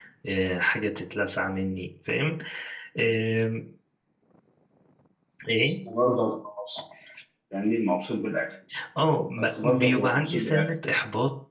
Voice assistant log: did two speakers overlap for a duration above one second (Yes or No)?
Yes